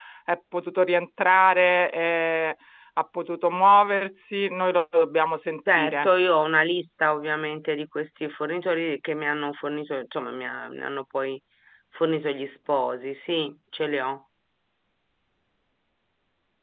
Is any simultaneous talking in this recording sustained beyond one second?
No

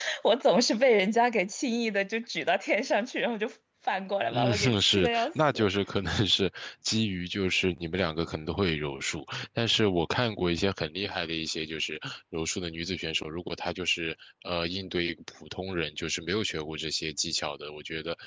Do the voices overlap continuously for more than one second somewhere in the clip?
Yes, from 4.3 s

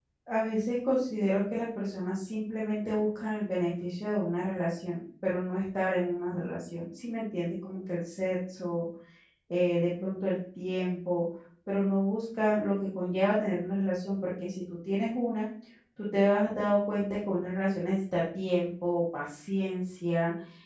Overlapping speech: No

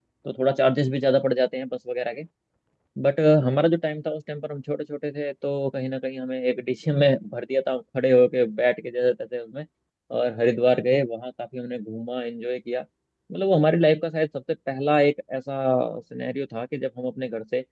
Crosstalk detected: No

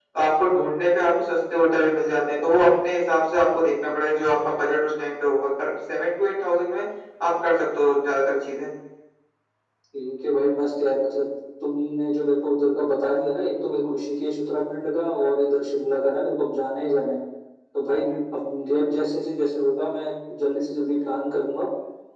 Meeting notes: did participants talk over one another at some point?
No

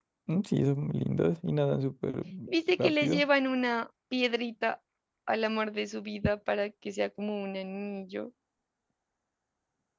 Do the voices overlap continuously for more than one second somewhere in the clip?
No

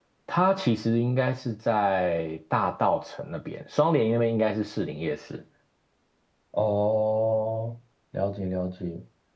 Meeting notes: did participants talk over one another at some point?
No

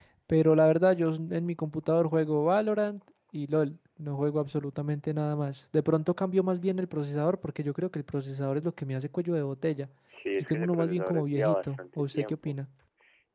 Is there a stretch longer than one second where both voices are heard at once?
Yes, from 10.4 s

